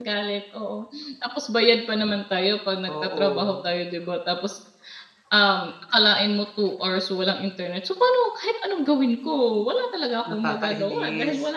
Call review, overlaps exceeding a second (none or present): present